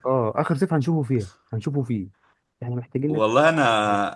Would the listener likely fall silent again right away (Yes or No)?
No